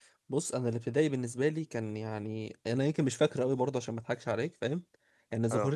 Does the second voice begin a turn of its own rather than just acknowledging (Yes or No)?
No